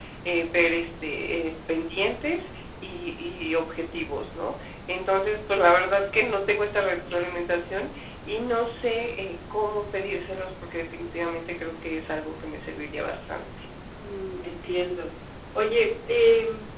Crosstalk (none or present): none